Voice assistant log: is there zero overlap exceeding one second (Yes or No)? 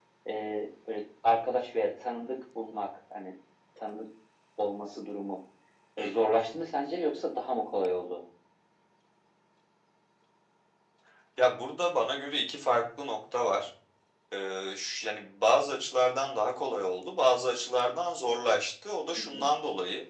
Yes